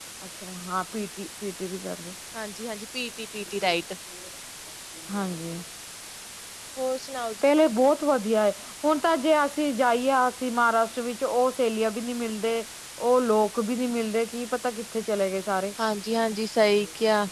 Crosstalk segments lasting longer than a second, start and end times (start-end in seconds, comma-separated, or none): none